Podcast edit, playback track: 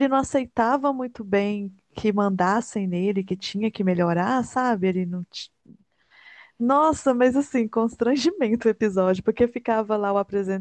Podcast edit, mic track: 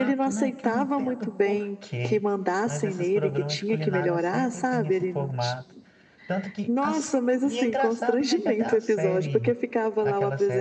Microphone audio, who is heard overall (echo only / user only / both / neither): both